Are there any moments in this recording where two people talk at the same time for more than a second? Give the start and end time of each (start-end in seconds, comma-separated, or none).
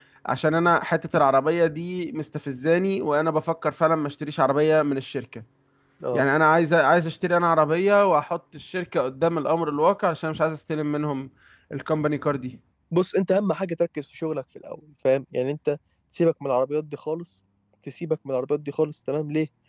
none